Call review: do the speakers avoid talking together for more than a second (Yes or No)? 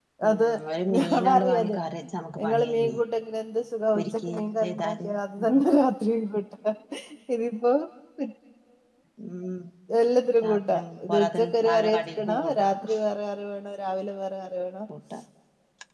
No